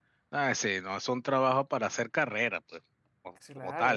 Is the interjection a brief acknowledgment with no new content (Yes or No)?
No